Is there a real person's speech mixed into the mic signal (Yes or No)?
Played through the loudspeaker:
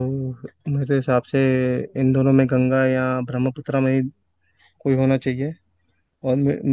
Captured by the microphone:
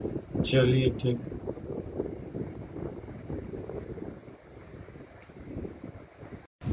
Yes